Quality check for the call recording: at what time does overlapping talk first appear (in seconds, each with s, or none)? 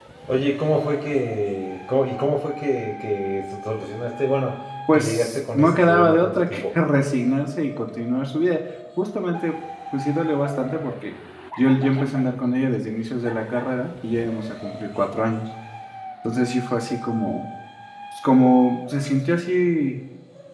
4.9 s